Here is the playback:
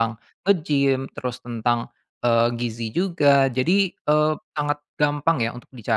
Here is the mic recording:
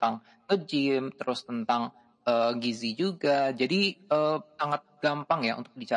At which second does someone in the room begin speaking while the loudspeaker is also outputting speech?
none

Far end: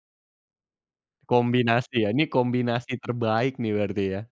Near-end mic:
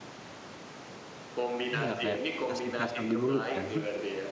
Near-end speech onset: 1.8 s

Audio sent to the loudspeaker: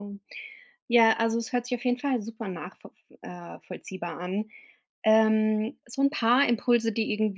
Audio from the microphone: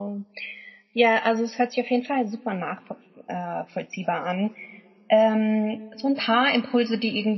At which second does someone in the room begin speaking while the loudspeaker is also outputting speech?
none

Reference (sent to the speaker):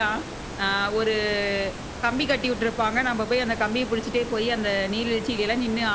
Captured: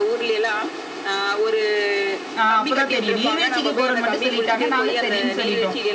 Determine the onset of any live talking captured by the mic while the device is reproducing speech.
2.4 s

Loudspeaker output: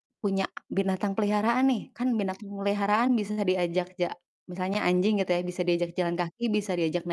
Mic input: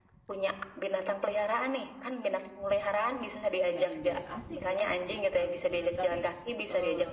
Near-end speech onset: 3.6 s

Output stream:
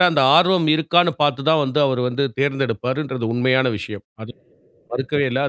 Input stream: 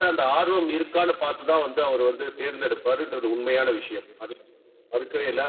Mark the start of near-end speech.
none

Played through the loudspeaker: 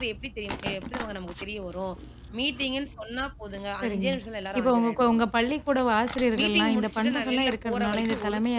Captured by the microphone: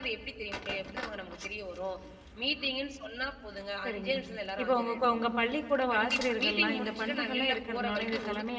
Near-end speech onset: 5.9 s

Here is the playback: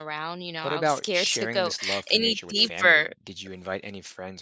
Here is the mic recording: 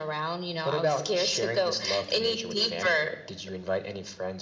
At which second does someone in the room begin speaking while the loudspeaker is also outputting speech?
none

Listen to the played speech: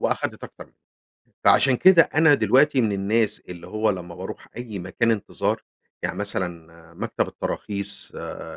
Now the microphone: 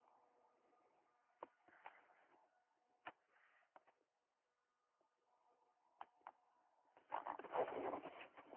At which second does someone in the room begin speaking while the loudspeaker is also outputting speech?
none

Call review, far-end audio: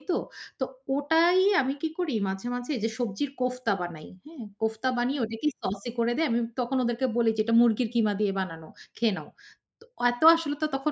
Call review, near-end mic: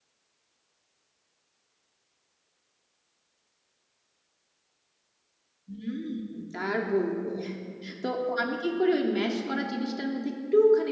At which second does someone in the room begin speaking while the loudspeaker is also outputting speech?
5.7 s

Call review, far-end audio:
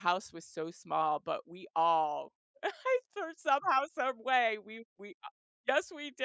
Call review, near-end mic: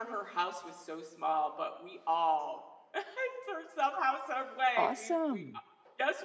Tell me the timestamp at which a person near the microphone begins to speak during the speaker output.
4.8 s

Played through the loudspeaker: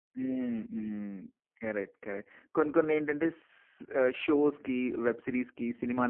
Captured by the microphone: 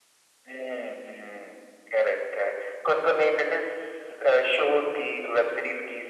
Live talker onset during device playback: none

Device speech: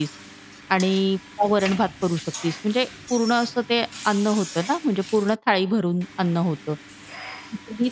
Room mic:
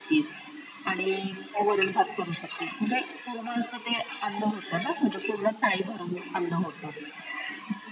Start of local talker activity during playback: none

